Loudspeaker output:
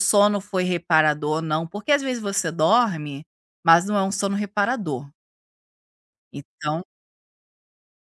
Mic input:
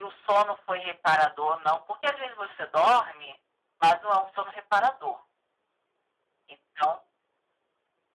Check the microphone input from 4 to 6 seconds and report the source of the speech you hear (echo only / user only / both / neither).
echo only